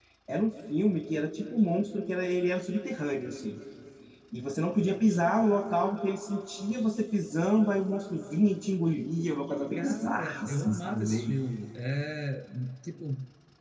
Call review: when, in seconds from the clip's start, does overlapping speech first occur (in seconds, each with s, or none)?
9.8 s